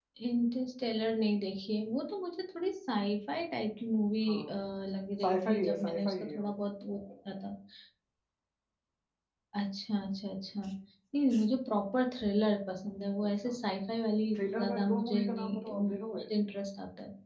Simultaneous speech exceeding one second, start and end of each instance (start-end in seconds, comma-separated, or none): 5.2-6.5, 14.4-16.2